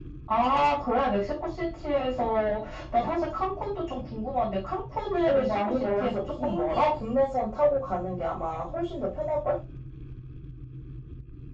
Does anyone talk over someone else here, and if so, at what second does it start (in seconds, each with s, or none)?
5.2 s